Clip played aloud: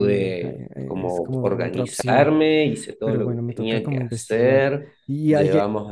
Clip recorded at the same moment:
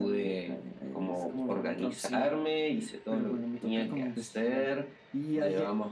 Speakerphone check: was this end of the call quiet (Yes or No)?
Yes